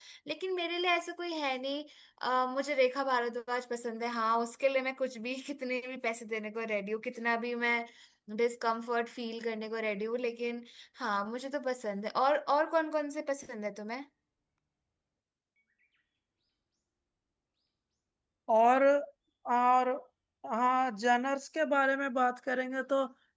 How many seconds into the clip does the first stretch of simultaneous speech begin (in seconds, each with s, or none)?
none